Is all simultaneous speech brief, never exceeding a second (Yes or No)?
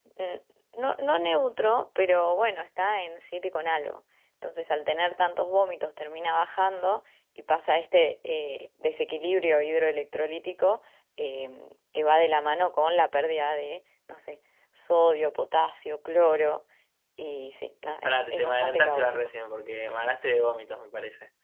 No